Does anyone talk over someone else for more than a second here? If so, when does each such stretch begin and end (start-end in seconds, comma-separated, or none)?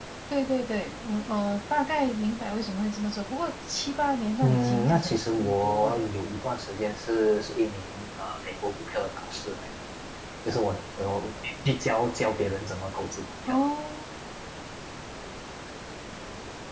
4.4-6.1